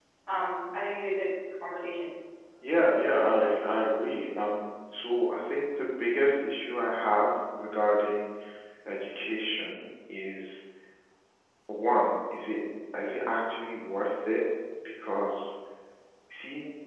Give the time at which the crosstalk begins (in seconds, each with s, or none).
none